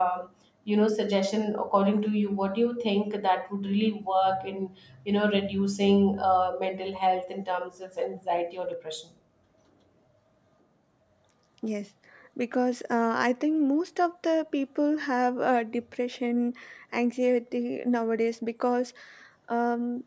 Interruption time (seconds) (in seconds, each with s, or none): none